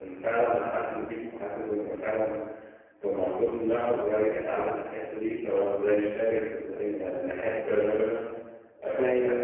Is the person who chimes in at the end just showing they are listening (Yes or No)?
Yes